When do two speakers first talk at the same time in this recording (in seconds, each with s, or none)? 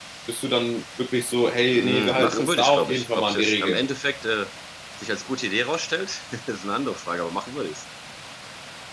1.6 s